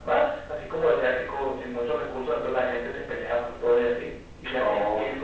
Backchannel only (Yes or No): Yes